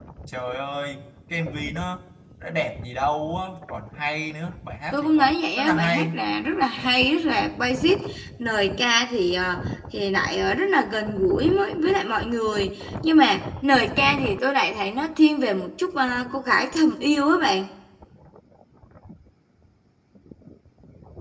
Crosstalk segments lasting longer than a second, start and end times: 4.9-6.2

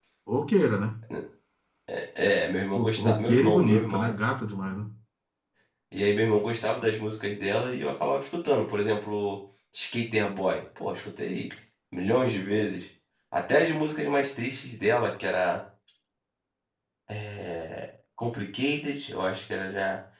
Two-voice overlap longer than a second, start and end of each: 2.8-4.1

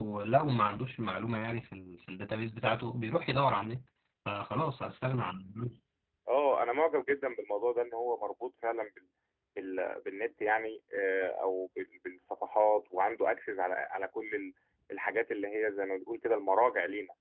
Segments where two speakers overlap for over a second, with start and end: none

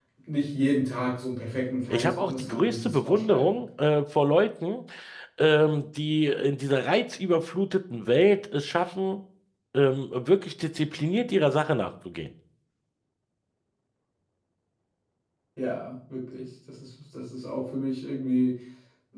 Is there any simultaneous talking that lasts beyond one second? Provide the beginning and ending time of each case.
1.9-3.6

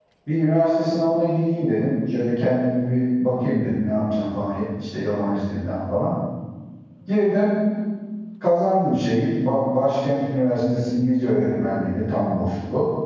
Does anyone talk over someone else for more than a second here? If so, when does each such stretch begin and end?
none

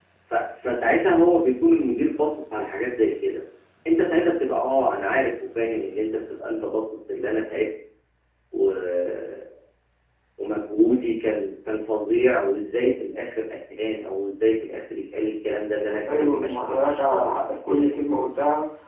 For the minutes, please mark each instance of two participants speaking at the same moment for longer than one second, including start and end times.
15.9-17.9

